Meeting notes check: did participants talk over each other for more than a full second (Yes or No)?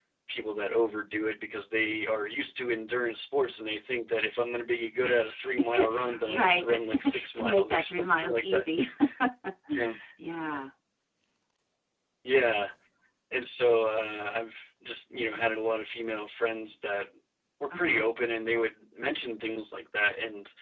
Yes